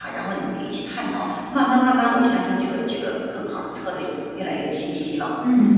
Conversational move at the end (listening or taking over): taking over